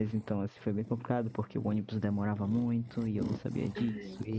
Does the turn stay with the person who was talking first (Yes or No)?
Yes